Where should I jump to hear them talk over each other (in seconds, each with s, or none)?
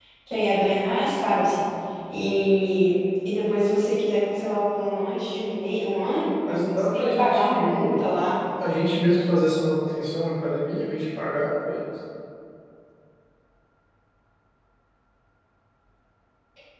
6.8 s